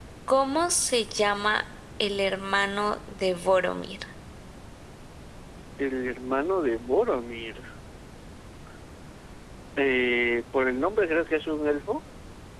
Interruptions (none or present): none